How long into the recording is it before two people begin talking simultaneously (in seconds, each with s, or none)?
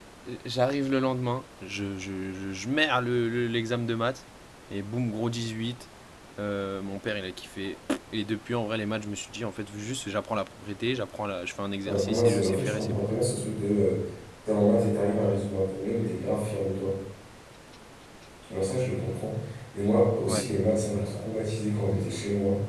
11.8 s